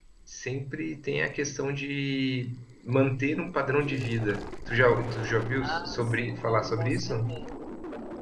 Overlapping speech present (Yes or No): Yes